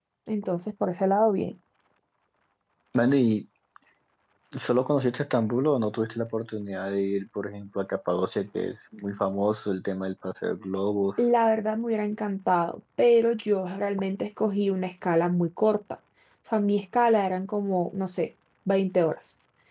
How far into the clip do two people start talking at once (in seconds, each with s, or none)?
none